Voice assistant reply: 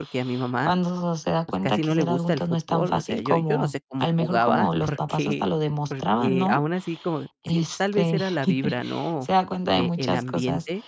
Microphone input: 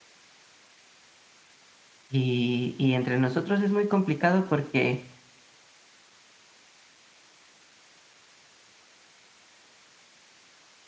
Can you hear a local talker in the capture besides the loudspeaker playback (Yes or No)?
Yes